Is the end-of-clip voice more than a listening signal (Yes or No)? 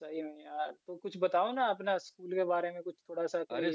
Yes